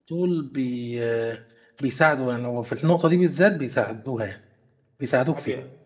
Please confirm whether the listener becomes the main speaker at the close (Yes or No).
Yes